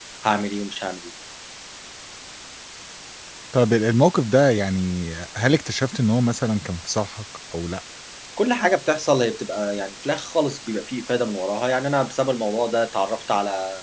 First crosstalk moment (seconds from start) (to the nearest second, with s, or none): none